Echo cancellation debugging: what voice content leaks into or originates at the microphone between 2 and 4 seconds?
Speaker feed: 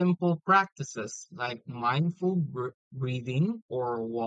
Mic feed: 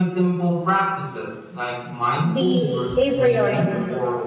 both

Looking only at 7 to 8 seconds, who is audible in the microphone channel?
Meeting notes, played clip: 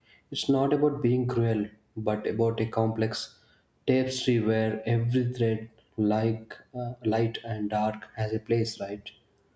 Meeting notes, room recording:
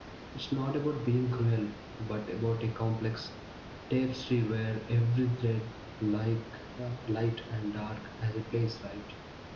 echo only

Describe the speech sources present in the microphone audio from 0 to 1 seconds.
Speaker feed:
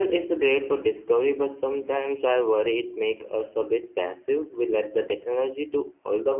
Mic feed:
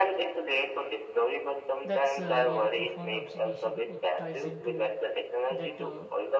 echo only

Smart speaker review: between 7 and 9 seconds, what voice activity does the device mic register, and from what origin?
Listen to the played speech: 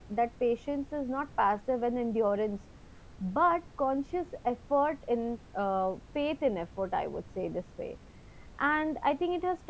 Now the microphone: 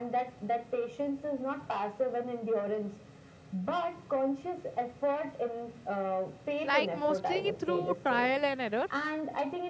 both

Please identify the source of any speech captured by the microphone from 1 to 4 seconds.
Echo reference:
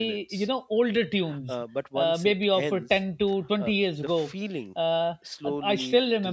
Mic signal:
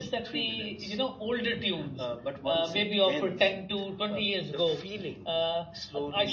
echo only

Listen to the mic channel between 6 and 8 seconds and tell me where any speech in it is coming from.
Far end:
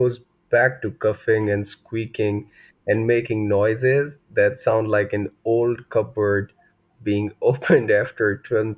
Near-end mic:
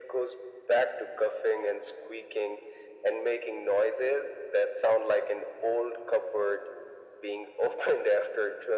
echo only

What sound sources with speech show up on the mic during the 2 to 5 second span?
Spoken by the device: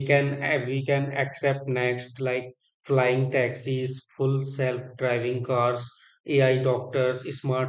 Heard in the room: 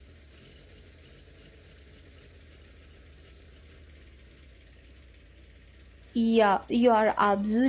neither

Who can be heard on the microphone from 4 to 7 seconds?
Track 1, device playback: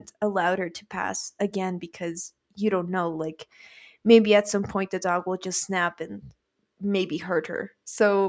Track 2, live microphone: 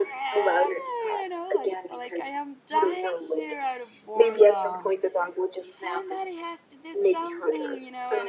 both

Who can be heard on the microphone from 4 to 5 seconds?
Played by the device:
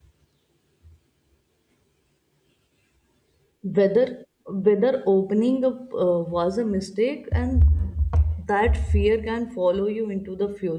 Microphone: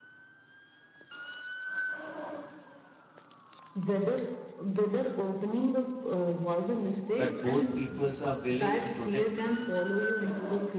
echo only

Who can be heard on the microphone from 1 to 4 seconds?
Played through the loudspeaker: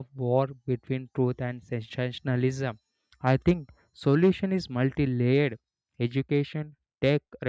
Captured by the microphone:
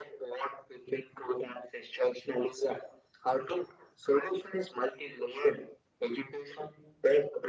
echo only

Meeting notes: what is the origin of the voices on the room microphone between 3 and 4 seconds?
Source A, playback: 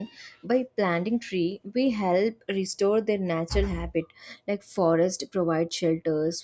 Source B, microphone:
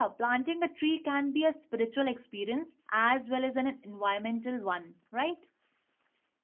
user only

